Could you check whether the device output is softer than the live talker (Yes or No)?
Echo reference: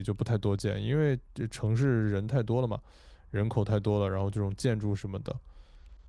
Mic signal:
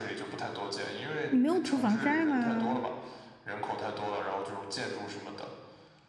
Yes